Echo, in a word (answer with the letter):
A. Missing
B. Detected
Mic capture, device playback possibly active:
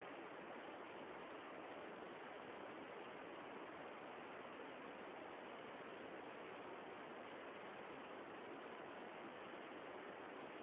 A